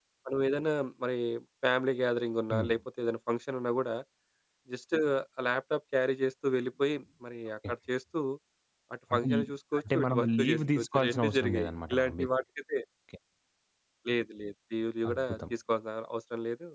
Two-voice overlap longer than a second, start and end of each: 9.8-12.3

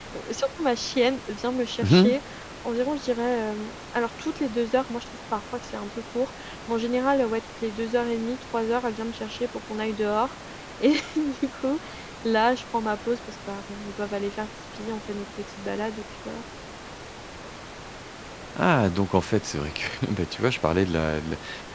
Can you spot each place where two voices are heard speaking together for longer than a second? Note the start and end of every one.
none

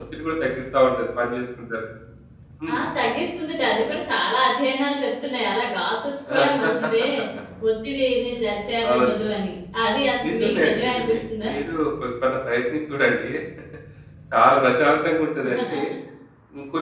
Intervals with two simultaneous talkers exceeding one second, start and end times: 10.3-11.5

